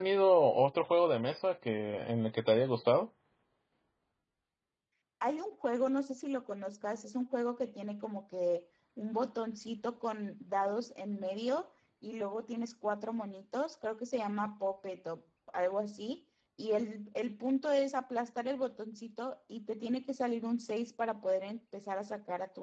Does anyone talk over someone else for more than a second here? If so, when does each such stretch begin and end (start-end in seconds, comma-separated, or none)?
none